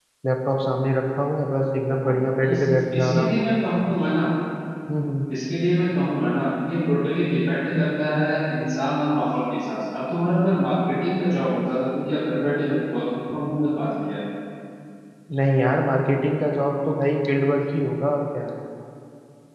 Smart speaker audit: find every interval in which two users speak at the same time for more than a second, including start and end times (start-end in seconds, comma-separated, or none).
none